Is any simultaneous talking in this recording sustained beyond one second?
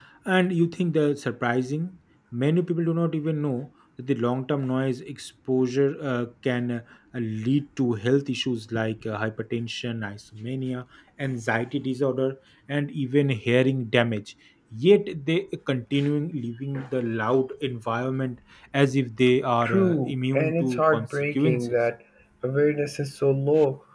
Yes, from 19.6 s

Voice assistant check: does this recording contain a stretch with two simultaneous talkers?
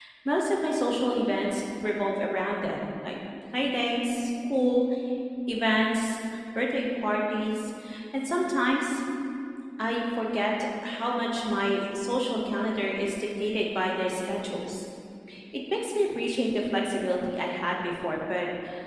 No

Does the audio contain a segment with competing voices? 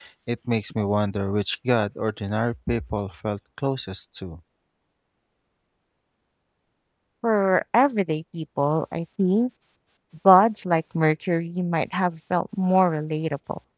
No

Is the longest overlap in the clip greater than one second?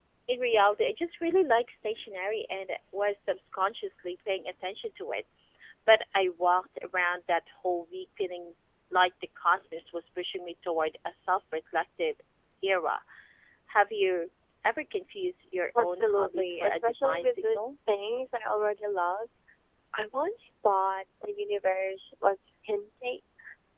Yes, from 15.8 s

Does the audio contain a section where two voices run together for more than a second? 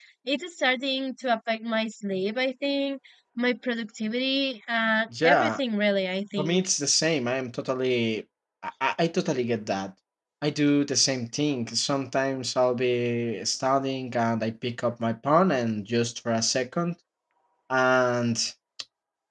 No

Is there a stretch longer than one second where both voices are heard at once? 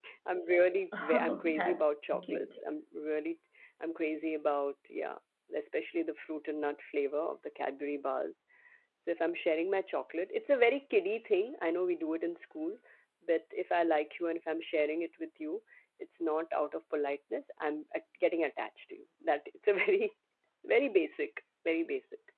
Yes, from 1.0 s

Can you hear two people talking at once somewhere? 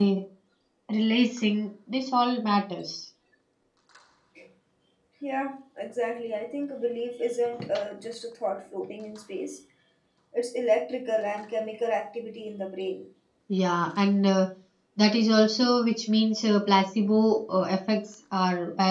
No

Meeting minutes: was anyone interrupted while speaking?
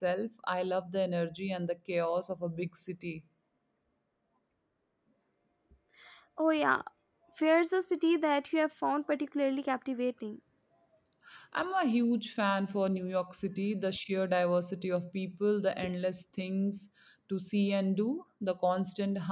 No

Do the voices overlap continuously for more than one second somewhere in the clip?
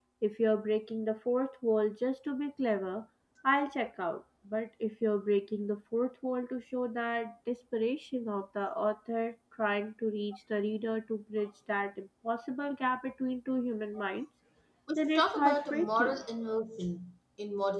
Yes, from 15.0 s

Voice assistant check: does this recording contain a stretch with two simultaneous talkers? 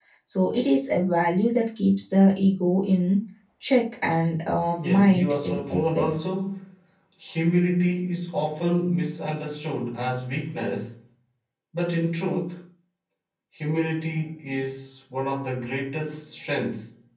Yes, from 4.7 s

